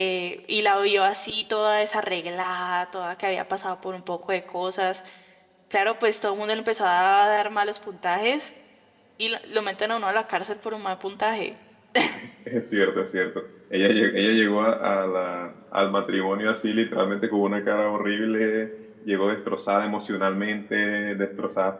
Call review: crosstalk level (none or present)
none